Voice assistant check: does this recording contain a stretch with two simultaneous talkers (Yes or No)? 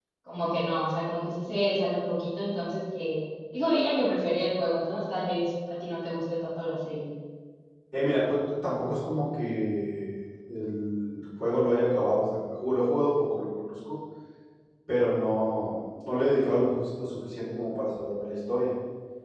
No